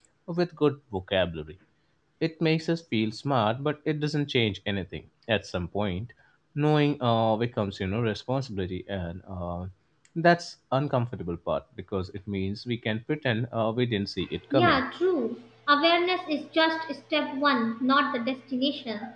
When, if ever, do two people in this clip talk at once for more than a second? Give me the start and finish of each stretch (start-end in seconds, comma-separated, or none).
none